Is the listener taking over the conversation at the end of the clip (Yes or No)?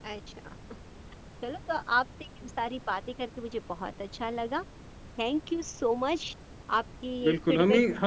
Yes